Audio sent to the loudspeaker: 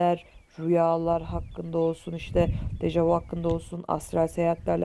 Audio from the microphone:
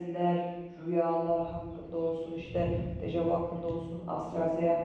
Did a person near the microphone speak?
No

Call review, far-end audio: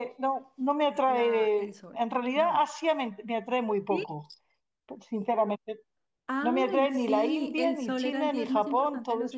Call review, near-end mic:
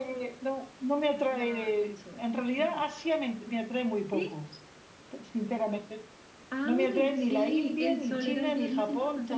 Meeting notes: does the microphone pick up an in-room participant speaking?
Yes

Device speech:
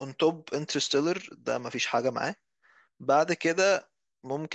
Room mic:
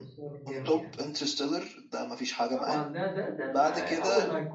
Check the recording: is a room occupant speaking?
Yes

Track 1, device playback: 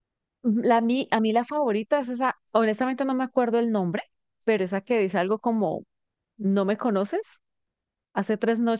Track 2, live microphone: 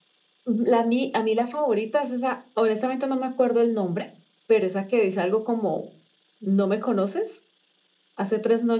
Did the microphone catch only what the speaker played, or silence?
Yes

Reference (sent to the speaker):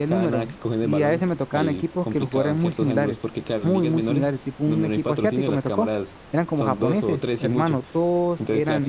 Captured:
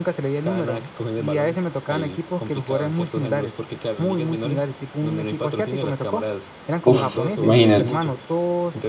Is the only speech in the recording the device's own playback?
No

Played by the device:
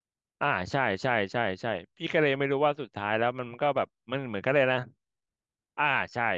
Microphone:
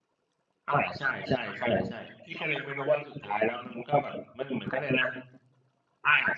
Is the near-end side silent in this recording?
Yes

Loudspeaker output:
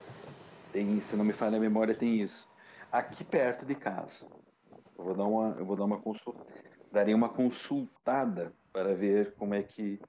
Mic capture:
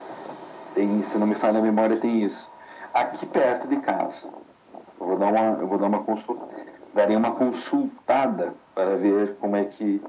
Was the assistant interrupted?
No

